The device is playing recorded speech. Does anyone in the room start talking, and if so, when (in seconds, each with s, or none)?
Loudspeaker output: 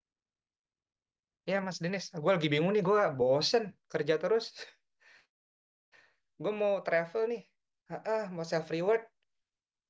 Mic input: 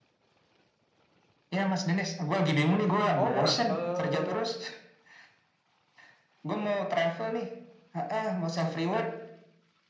3.2 s